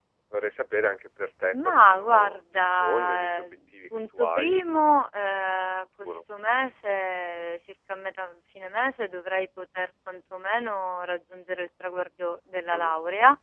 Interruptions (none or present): present